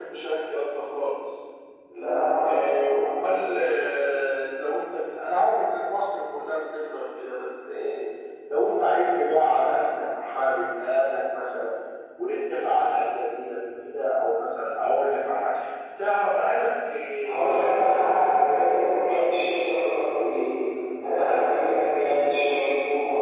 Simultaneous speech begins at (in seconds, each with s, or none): 17.2 s